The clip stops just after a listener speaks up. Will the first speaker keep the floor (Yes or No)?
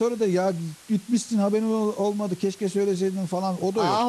No